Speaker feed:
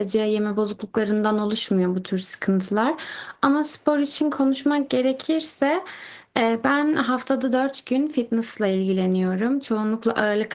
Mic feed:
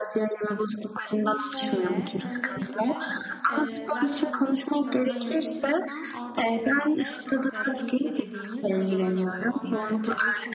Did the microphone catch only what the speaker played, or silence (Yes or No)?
No